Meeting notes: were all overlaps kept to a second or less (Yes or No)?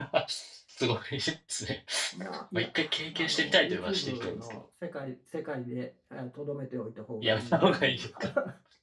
No